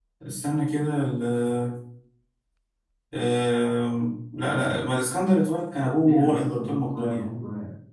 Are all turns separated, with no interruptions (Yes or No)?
No